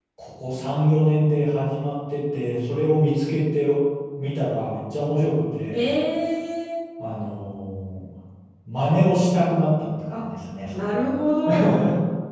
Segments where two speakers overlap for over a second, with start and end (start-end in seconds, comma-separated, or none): none